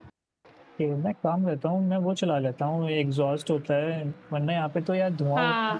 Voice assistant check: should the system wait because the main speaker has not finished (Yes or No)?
No